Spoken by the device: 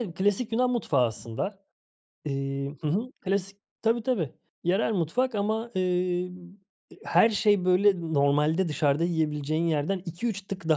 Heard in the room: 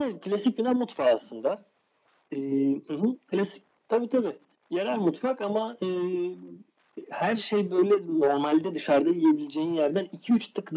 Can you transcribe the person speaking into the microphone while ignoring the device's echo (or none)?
none